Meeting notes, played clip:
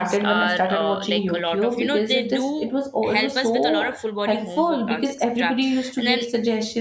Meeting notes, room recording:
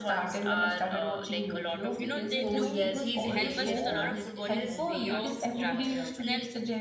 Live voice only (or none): Oh yes, he's hilarious, man. His his way of uh, uh